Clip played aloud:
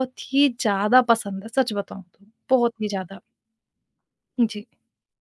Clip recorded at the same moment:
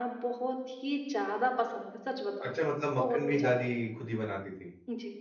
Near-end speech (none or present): present